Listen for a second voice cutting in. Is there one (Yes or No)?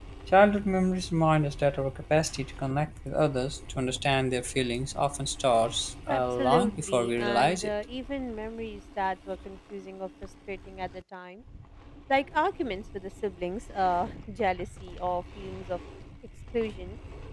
Yes